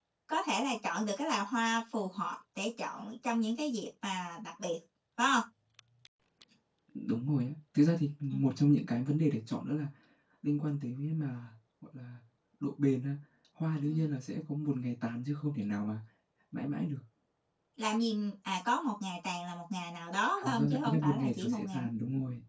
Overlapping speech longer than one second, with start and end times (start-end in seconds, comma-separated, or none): 20.4-21.8